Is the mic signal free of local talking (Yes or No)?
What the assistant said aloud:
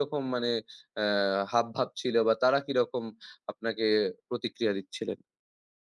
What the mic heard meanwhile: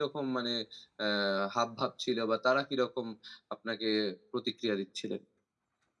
Yes